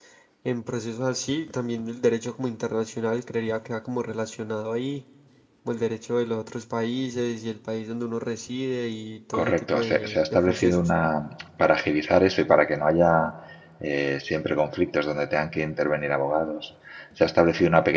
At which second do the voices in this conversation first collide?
9.3 s

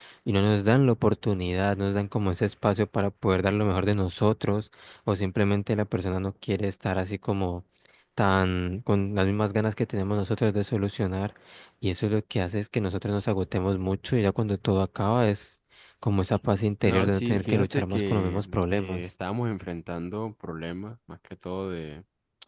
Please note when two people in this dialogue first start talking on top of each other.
16.9 s

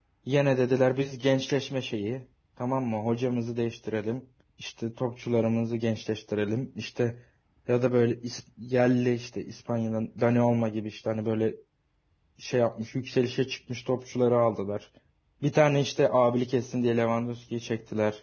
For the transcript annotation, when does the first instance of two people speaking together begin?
none

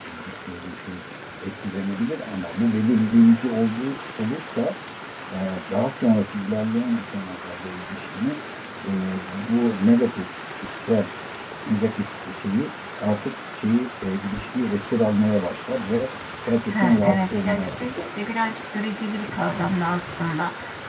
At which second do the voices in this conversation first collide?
16.7 s

